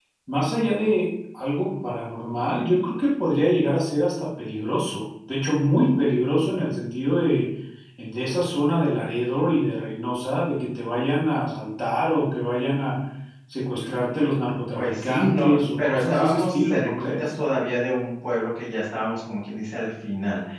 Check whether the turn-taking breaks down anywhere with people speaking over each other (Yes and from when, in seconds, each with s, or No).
Yes, from 14.7 s